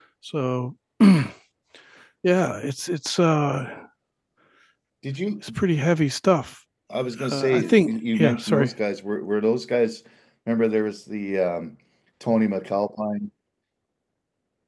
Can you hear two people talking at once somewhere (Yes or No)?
Yes